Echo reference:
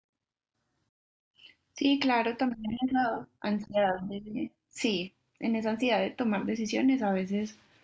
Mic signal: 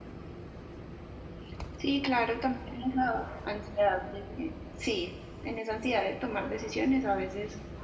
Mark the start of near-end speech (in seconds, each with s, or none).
none